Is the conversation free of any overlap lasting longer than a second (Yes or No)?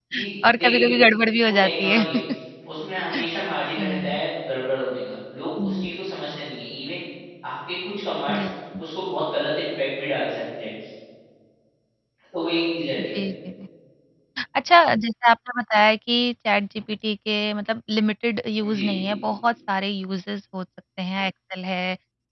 Yes